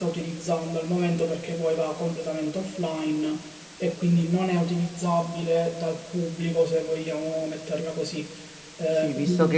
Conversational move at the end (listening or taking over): taking over